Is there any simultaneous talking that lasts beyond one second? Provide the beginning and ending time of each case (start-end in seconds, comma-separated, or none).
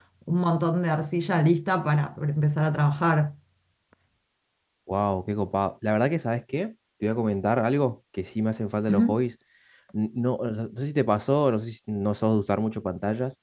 none